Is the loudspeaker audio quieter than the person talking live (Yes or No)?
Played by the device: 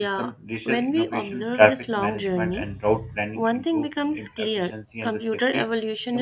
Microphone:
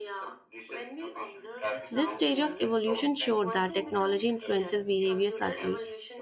Yes